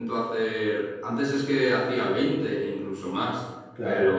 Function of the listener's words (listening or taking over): listening